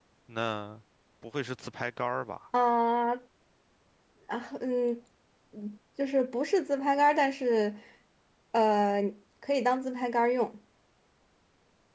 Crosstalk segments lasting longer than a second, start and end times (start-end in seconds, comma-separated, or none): none